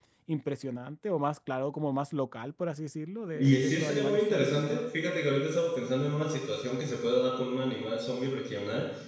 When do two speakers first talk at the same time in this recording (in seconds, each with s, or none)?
3.4 s